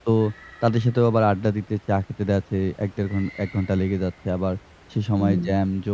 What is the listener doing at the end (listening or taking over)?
listening